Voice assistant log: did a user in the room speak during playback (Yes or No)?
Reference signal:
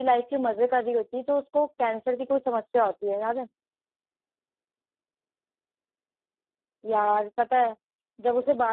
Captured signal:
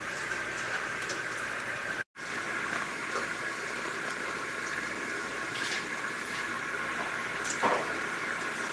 No